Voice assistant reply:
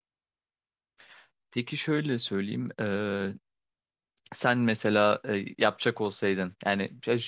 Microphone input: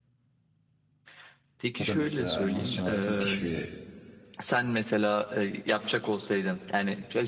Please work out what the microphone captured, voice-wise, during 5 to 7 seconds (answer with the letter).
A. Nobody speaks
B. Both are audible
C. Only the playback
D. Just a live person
C